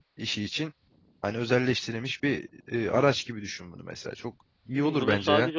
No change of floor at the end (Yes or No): No